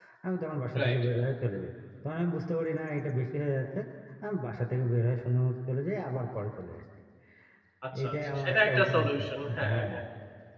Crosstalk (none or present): present